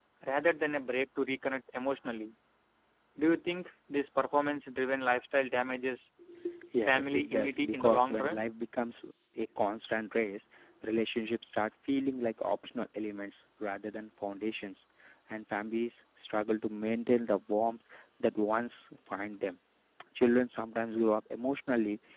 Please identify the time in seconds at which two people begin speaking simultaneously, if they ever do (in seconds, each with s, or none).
6.9 s